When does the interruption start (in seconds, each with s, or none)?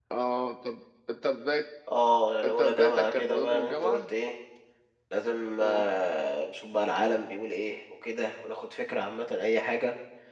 2.4 s